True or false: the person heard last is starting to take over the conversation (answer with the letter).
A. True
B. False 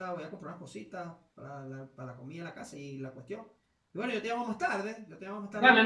A